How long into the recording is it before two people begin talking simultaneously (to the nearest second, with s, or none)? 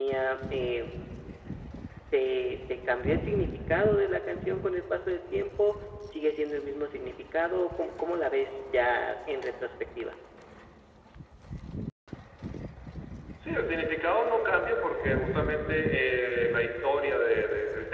none